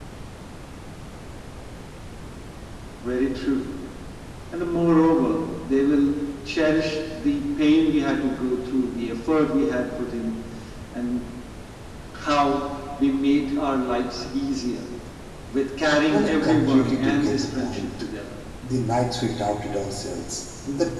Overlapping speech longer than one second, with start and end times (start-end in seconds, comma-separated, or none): 16.1-17.9